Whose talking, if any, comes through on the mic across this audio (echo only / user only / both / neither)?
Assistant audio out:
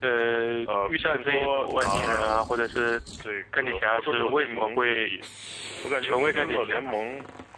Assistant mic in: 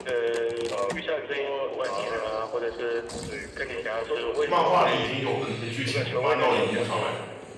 both